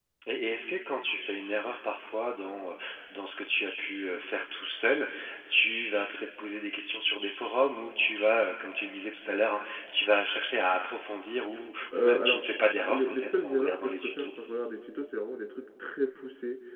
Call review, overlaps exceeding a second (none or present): present